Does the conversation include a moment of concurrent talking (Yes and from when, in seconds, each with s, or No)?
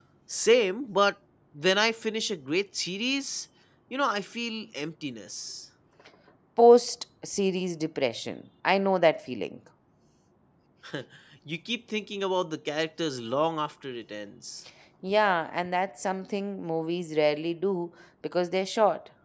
No